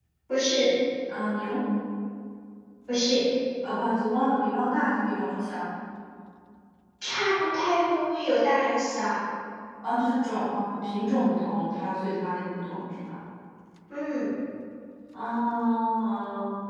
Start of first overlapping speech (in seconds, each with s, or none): none